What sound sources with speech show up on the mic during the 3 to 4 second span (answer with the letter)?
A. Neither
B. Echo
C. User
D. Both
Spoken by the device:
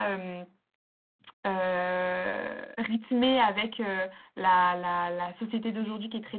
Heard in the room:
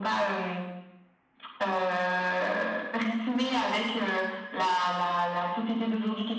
B